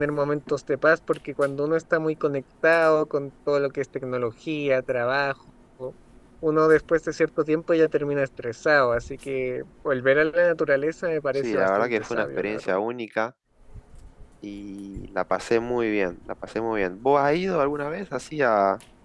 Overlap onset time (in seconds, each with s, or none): 11.4 s